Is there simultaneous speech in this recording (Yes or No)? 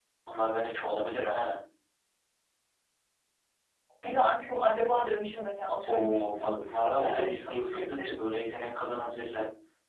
Yes